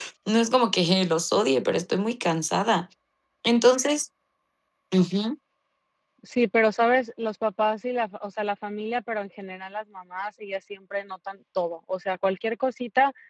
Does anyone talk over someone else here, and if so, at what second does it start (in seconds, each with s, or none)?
none